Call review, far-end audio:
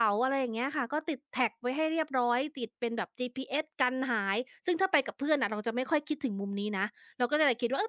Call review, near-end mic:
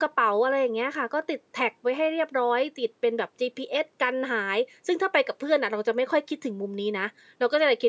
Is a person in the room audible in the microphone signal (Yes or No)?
No